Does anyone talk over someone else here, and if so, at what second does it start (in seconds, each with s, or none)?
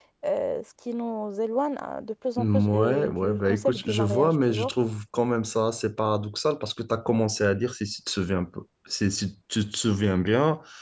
2.4 s